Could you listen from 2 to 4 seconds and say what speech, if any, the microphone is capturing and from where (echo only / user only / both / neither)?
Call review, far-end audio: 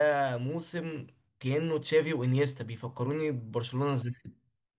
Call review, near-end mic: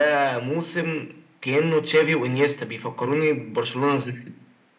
echo only